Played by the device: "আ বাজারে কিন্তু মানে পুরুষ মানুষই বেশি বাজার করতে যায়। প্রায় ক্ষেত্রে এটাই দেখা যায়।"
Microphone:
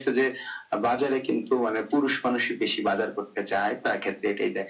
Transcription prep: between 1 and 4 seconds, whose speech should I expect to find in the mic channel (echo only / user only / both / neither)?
echo only